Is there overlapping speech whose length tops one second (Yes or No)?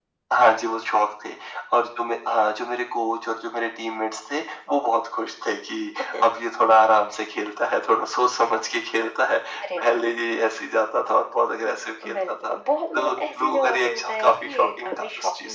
Yes